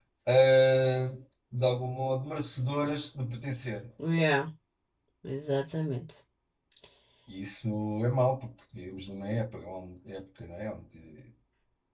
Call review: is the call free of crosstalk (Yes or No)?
Yes